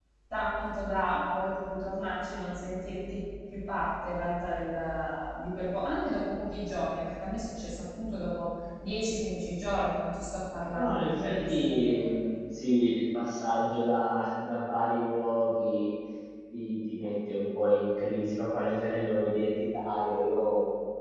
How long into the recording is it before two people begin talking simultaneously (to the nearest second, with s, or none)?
11 s